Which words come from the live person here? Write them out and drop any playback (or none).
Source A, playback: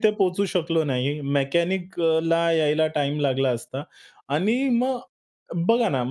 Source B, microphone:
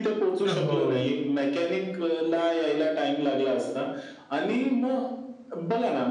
अ, हो.